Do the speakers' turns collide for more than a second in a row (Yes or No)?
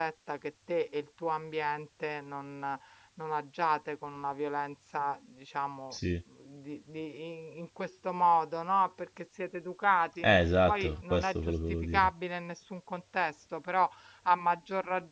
Yes